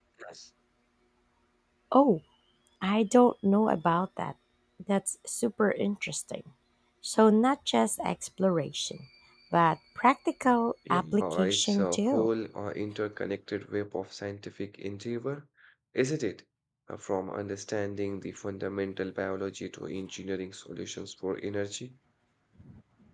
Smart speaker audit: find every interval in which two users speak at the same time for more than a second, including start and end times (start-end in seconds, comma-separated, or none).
10.9-12.3